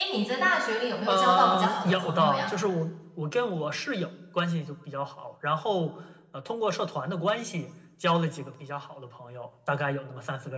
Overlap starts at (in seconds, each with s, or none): 1.1 s